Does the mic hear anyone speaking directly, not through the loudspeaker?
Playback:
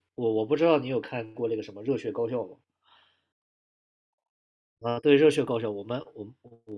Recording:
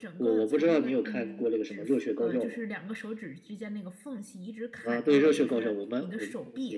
Yes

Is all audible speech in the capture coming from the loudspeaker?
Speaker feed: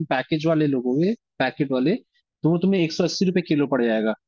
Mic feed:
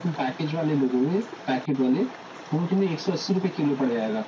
Yes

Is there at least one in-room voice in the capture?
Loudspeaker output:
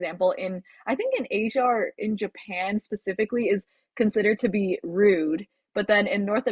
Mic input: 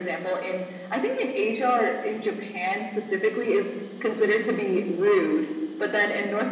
No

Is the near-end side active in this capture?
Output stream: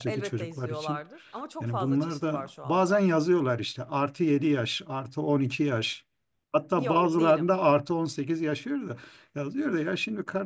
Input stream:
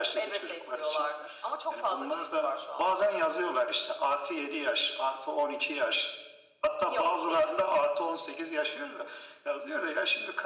No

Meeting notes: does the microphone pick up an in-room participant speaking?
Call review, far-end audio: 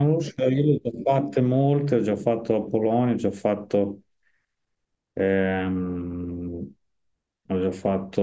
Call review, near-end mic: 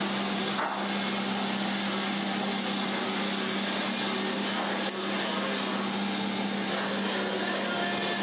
No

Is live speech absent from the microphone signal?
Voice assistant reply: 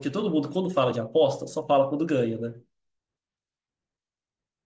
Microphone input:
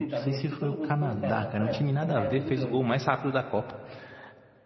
No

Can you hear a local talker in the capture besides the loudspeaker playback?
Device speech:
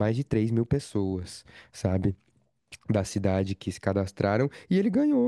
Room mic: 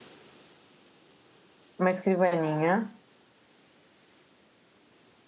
Yes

